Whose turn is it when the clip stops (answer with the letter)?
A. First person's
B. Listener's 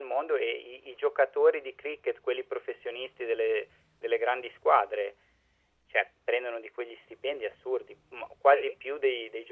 A